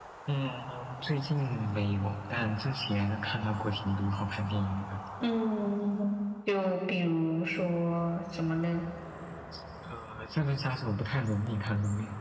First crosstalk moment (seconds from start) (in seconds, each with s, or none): none